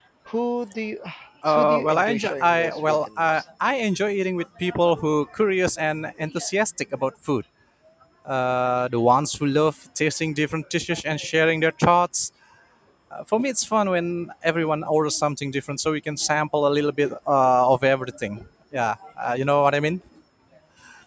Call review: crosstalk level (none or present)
present